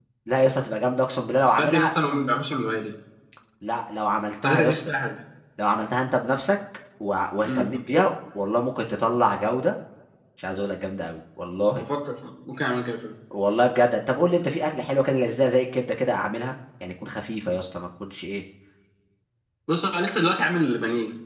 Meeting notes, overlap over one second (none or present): none